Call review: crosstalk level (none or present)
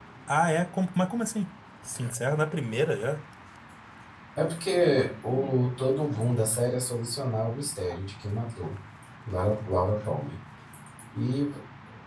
none